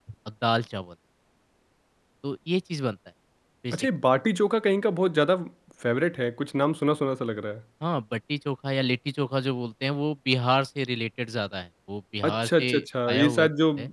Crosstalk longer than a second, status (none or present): present